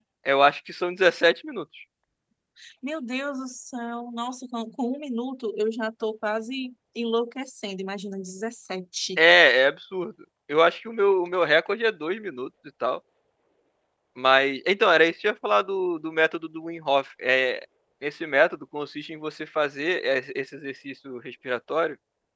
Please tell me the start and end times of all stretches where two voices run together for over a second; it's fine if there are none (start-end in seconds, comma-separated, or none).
none